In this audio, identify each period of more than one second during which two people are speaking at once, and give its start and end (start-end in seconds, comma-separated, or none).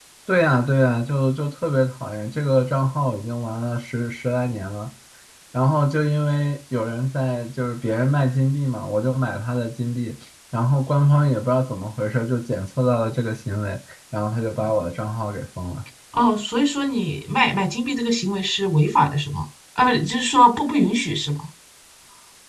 none